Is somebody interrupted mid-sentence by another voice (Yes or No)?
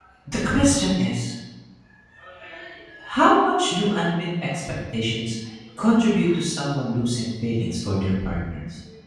No